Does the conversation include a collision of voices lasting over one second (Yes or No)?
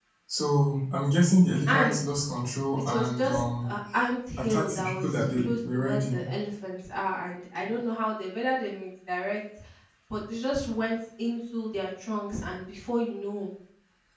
Yes